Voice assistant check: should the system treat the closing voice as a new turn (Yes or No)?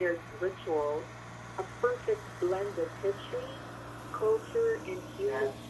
Yes